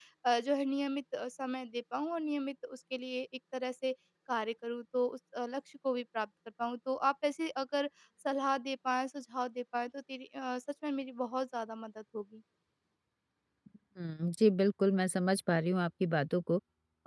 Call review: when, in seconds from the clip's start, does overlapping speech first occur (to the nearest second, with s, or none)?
none